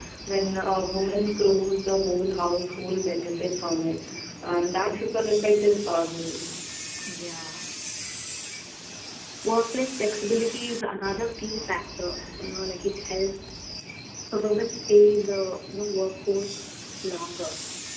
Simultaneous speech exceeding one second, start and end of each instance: none

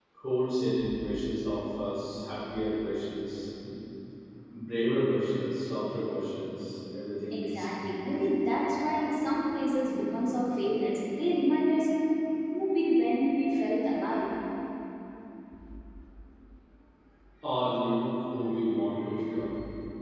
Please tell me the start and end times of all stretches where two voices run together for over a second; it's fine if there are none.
none

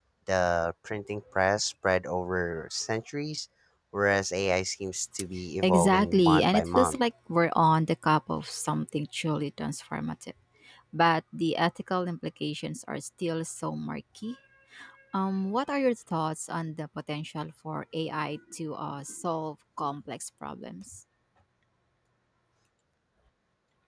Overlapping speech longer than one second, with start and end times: 5.6-7.0

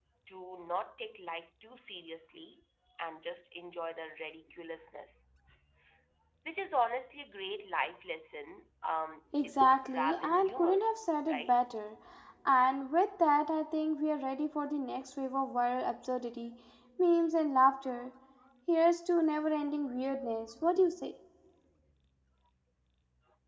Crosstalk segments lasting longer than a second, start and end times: 9.4-10.8

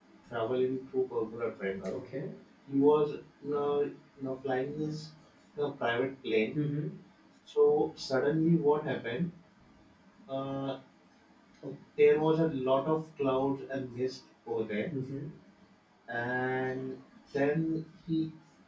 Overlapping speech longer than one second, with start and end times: none

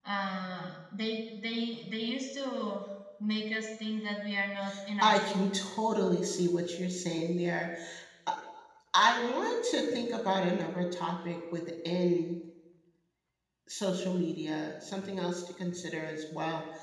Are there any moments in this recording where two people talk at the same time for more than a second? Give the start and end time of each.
none

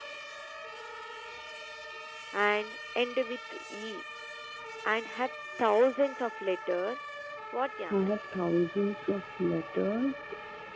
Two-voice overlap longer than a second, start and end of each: none

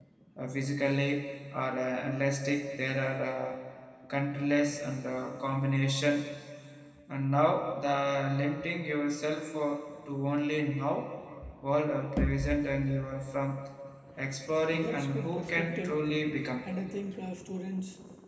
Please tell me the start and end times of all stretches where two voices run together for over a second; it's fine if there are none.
14.7-16.0

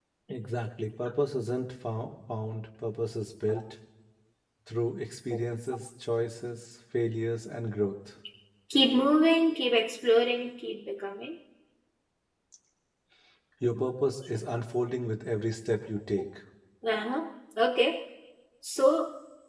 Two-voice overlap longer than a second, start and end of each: none

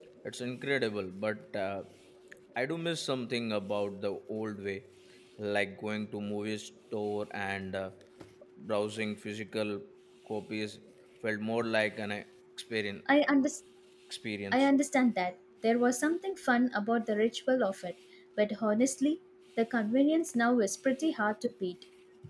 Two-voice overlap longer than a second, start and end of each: none

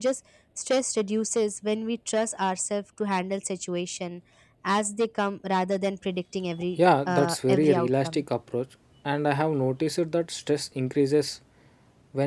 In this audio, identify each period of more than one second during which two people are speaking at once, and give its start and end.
6.8-8.2

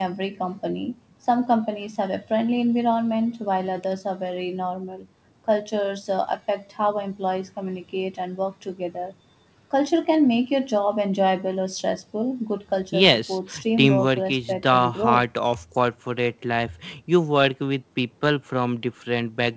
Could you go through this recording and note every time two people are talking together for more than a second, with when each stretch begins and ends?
12.9-15.2

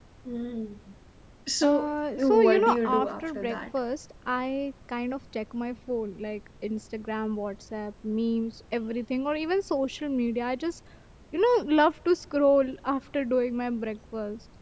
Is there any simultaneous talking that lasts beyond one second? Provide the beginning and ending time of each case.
1.7-3.6

